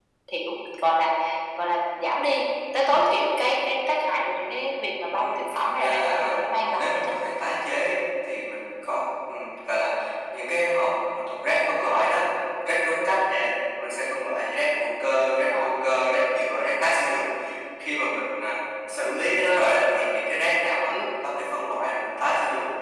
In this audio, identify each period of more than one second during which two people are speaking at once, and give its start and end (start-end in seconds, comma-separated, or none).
5.1-7.2